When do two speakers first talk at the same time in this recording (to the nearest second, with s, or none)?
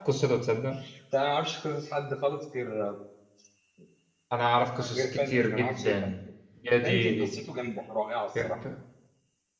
5 s